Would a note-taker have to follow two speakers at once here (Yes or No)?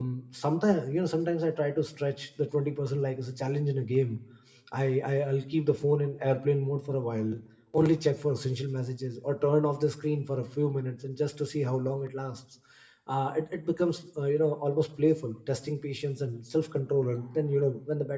No